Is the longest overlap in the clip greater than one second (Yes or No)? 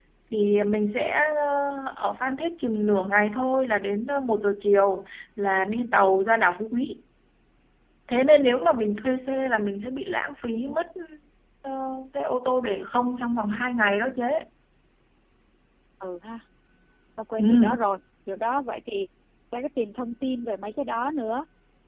No